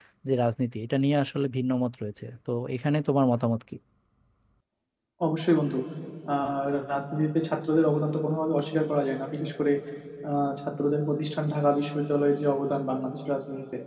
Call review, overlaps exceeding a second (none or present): none